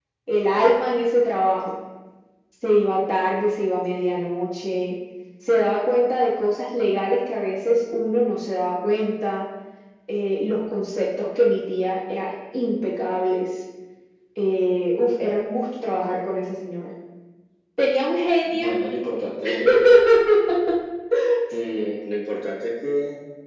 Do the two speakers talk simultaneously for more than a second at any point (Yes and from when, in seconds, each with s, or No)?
No